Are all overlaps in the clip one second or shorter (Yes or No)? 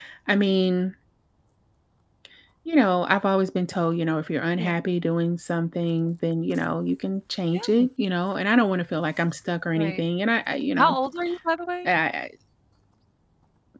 Yes